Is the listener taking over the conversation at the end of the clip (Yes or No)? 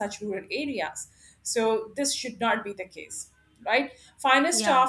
No